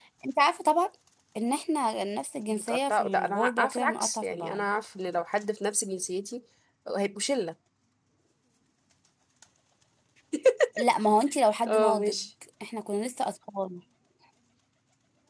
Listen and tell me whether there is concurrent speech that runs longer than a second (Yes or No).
Yes